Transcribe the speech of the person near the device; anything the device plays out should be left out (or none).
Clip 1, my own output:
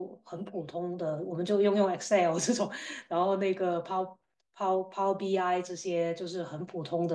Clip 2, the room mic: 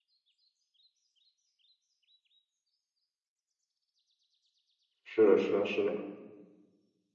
是的，是的，是的。